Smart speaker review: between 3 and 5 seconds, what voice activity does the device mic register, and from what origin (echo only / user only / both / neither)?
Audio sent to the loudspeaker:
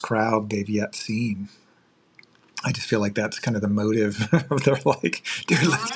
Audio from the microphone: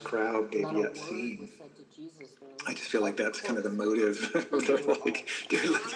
both